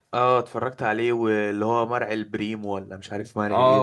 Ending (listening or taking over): taking over